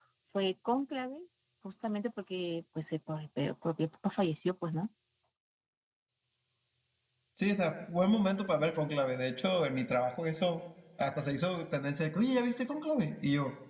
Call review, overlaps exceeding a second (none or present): none